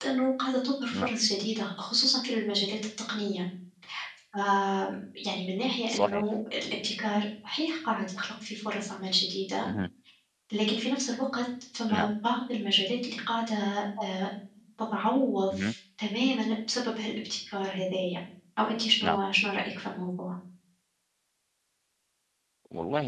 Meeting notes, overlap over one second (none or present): none